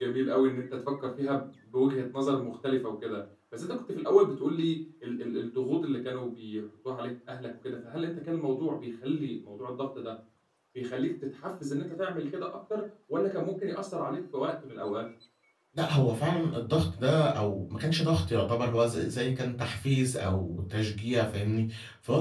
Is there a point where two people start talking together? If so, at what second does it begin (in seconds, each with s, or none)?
none